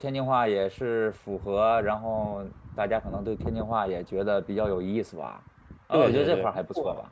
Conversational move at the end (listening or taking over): taking over